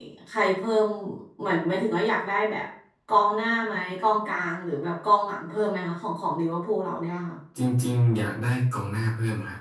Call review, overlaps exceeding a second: none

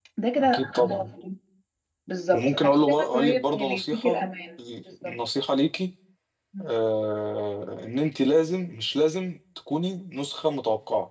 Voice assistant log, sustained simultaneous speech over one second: present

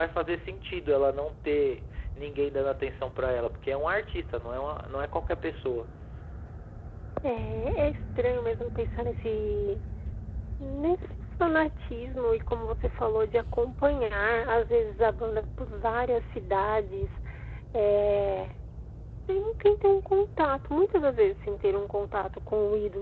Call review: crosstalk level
none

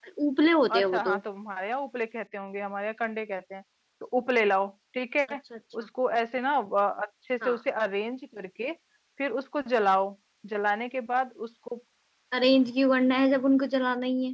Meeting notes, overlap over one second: none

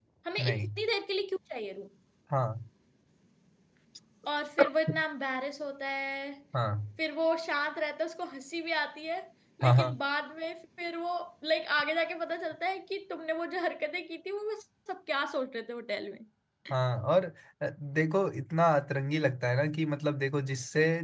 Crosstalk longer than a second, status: none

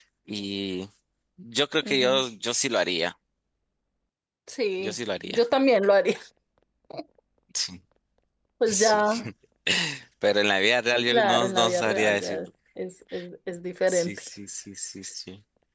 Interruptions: present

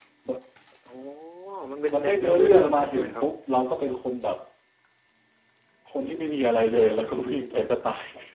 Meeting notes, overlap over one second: present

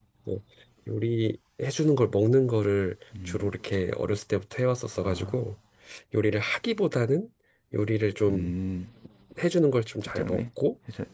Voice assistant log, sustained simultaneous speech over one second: none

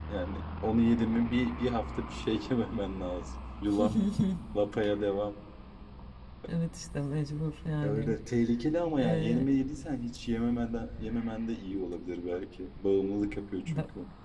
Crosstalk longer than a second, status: none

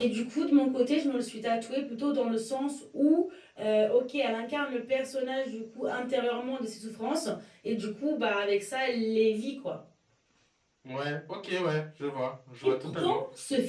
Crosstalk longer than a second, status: none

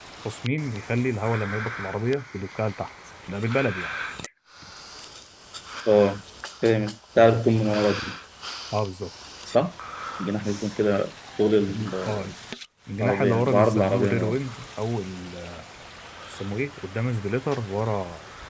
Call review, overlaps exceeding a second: present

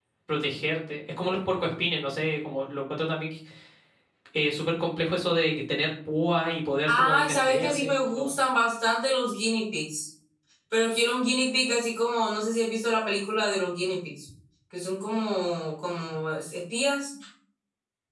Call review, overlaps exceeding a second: present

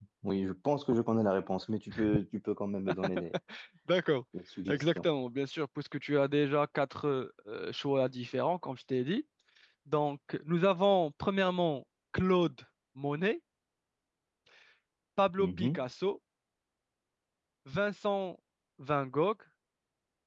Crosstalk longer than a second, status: none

